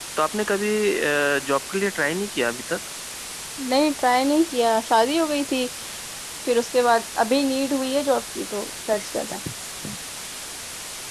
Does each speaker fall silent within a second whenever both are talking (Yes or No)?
Yes